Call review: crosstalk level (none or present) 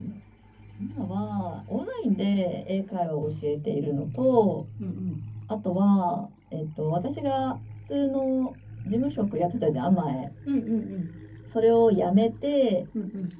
none